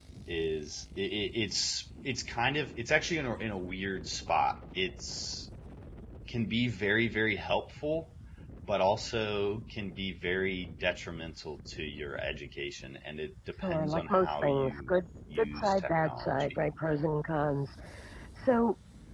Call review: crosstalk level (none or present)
present